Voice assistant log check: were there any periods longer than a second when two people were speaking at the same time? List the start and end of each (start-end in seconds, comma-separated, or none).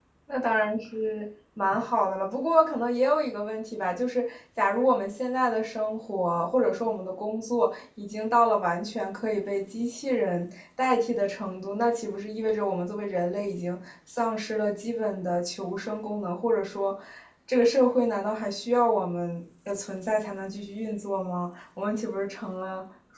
none